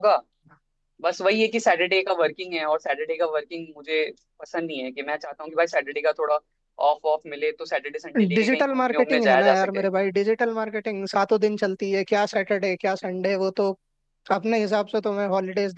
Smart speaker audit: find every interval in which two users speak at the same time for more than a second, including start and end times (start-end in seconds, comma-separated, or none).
8.4-9.8